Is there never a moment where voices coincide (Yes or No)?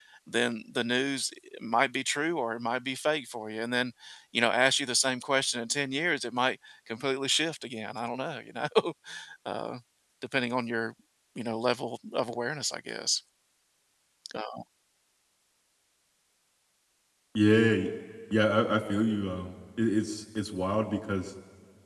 Yes